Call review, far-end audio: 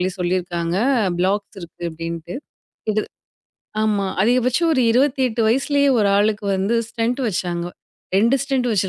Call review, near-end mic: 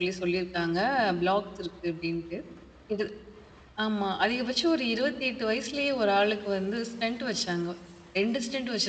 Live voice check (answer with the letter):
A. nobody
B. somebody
A